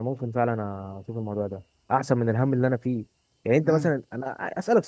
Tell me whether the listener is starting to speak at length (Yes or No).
No